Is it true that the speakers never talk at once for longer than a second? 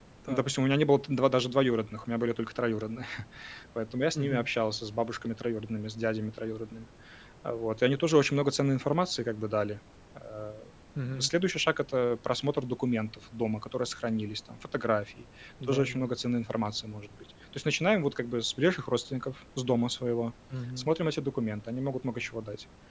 Yes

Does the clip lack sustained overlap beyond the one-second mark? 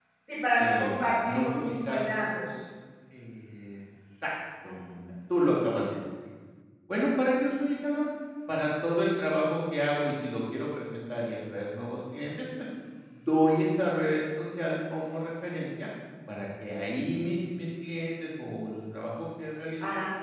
No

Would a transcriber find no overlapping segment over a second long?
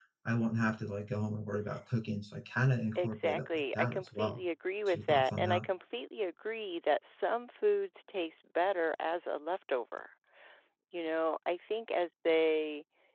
No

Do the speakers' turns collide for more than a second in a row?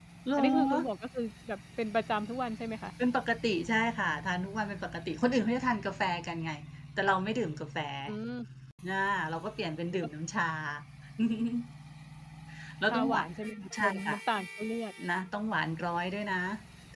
No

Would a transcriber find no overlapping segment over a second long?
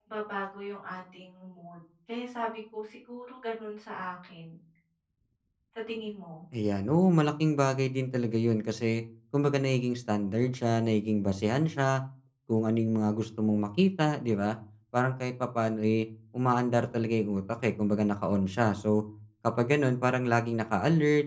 Yes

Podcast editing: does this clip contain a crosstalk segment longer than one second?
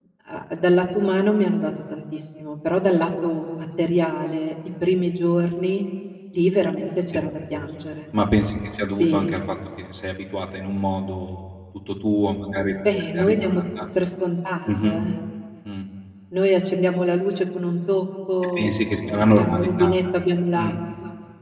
Yes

